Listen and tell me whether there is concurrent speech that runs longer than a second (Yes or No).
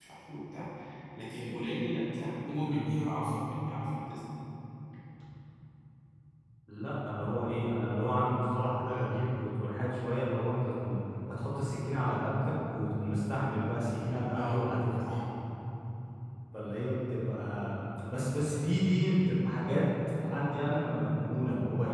No